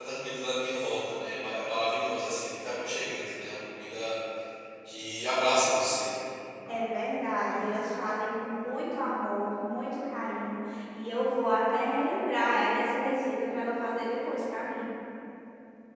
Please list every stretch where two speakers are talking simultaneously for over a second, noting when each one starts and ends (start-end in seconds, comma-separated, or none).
none